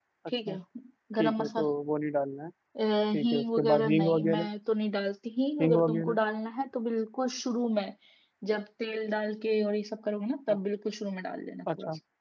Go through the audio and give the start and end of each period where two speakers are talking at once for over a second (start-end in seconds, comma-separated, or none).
3.2-4.5